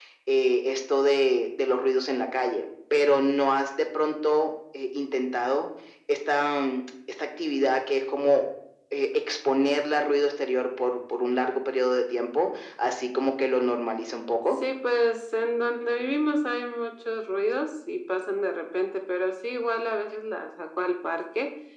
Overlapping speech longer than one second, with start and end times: none

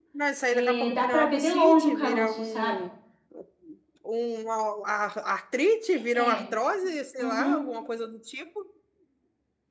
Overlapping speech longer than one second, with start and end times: 0.5-2.8

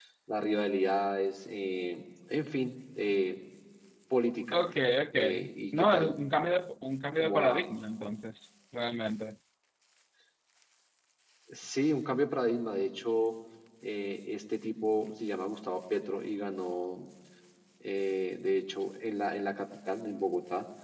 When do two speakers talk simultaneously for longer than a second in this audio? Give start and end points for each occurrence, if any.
none

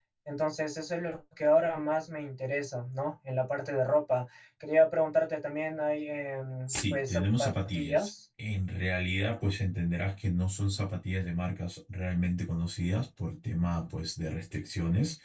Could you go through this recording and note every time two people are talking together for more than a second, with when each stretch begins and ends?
6.7-8.1

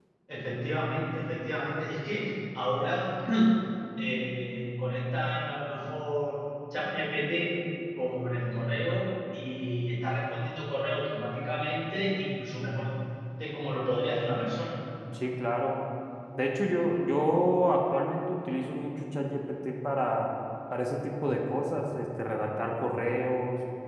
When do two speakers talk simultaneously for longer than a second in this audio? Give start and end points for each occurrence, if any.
none

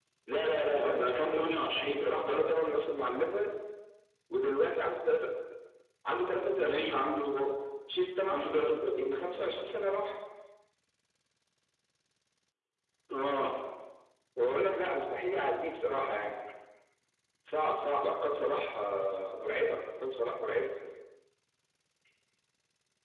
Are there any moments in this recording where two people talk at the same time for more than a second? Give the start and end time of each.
0.7-2.4, 8.2-9.5

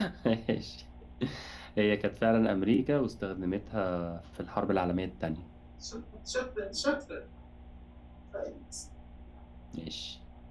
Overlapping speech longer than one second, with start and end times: none

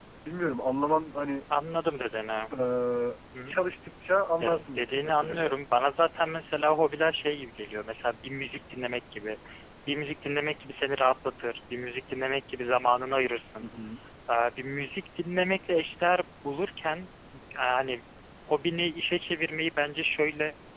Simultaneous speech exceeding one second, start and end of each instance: 4.4-5.6

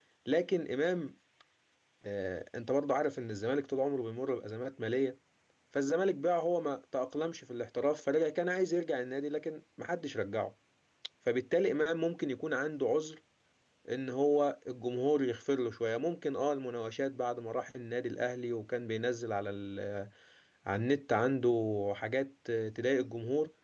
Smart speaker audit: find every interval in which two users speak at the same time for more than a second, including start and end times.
none

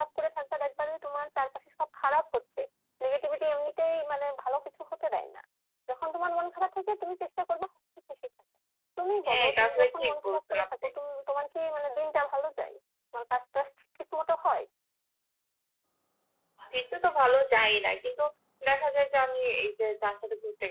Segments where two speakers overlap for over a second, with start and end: 9.2-10.9

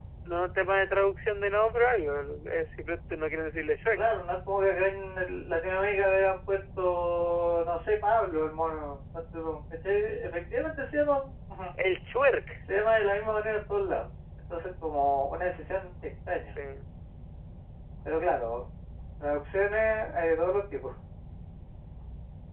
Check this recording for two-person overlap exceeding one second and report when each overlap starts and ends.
none

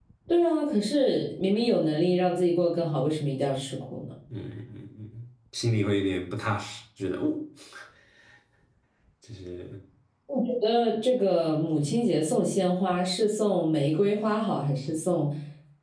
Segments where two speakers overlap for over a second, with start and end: none

